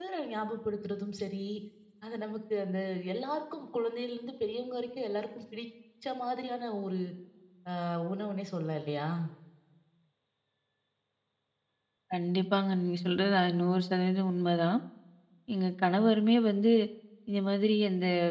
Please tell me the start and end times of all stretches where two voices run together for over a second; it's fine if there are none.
none

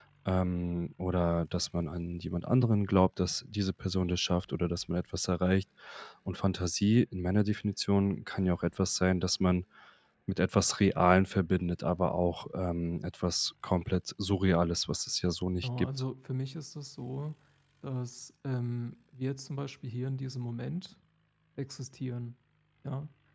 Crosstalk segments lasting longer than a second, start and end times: none

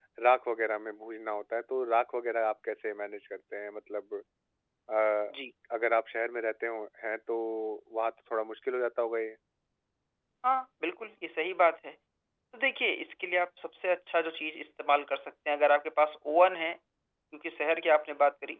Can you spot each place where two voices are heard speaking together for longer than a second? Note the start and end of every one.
none

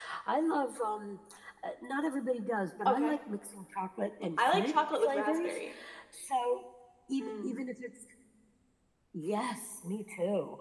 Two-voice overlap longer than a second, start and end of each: 4.4-5.6

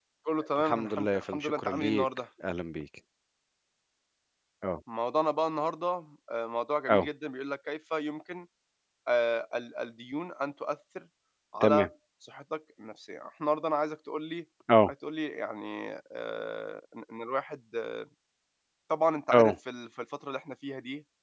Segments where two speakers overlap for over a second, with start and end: 0.6-2.0

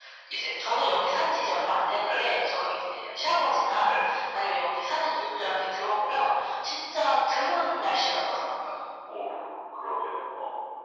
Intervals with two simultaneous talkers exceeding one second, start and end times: none

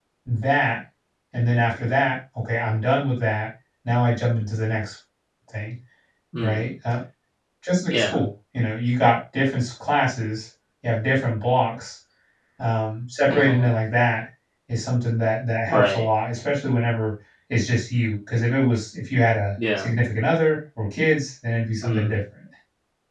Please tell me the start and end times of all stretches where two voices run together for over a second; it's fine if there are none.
none

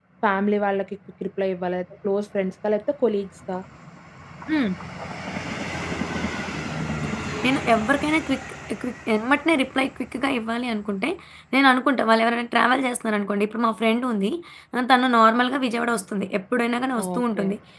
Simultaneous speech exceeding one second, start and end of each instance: none

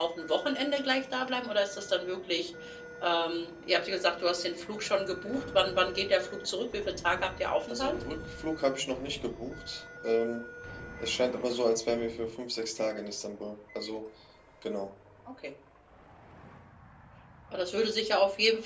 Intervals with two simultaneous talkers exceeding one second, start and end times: none

